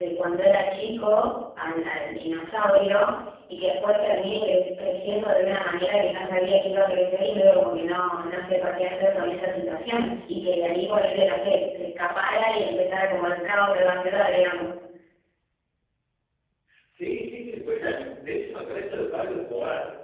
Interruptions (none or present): none